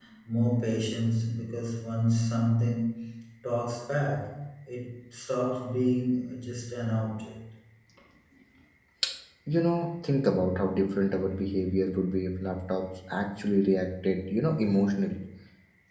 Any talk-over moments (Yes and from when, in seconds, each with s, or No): No